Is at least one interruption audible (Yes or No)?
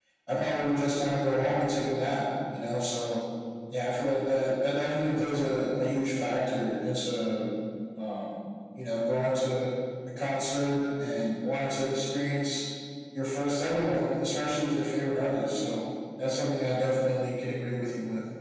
No